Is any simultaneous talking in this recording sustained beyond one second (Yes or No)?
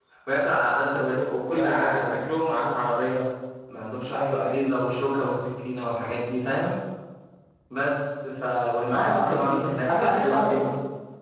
Yes